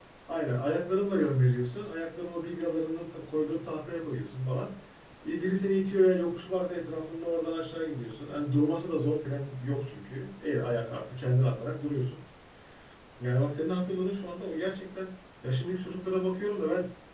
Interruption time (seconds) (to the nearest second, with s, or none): none